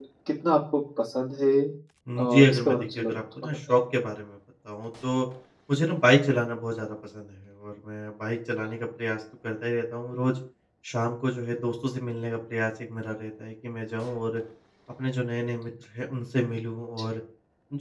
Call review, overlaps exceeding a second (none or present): present